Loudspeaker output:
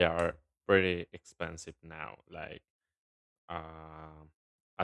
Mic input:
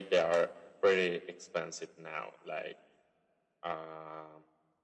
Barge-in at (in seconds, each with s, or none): none